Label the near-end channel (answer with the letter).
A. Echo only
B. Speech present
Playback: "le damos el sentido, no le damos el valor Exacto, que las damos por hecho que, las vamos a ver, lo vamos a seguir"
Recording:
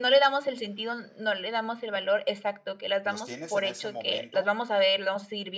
B